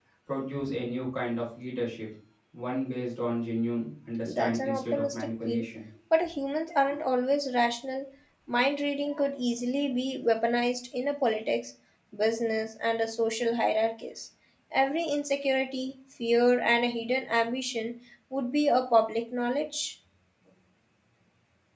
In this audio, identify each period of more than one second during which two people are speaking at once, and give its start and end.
4.2-5.7

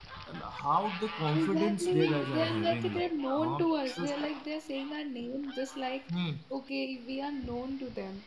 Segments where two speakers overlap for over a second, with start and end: 1.3-4.1

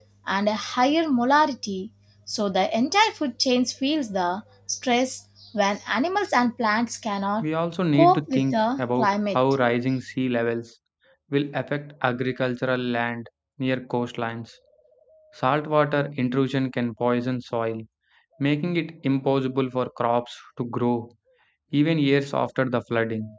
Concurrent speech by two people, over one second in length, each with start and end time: 7.9-9.4

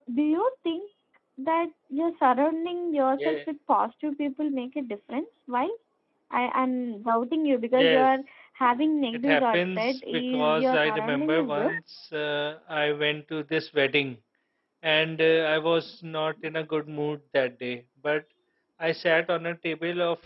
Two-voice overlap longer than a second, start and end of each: 9.3-11.6

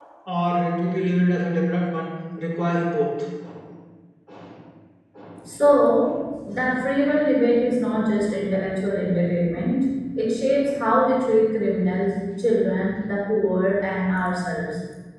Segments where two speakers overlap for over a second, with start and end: none

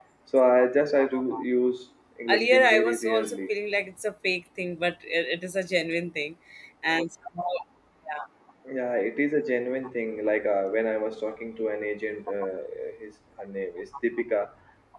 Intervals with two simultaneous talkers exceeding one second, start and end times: 2.3-3.5

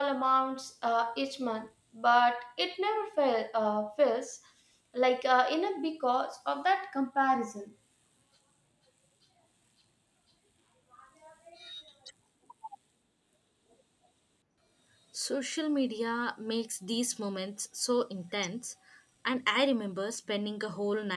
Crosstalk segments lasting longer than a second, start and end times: none

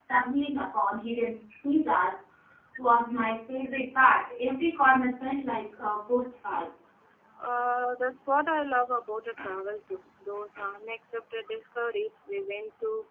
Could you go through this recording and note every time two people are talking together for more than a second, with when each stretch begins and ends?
none

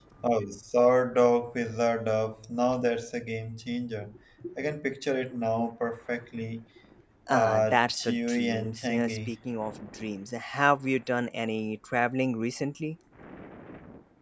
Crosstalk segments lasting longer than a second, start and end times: 7.3-9.3

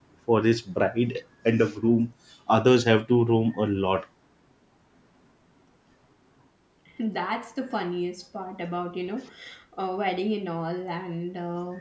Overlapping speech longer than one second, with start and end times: none

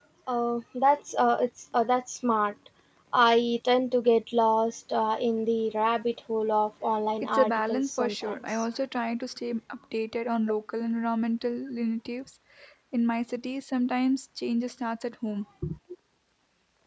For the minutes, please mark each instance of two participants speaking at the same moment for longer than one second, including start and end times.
7.2-8.7

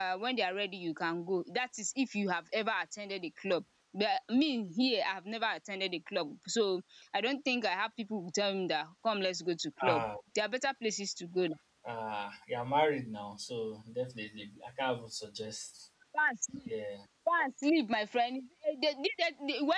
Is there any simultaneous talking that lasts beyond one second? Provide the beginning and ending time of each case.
none

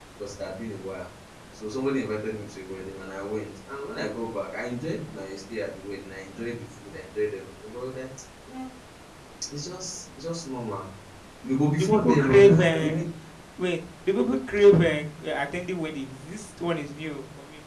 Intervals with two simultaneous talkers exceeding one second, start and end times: 11.8-13.0

